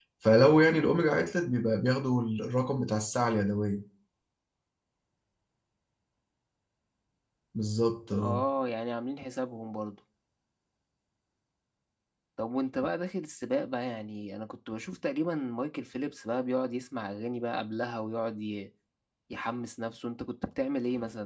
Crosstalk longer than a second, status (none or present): none